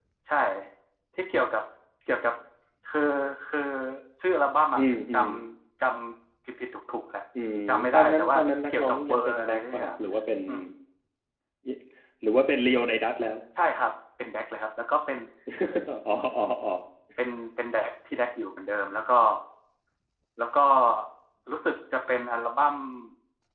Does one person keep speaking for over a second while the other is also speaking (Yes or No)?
Yes